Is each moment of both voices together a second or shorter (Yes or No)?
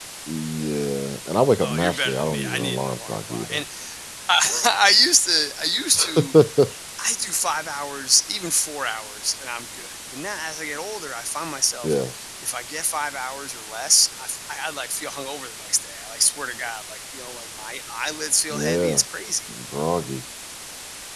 No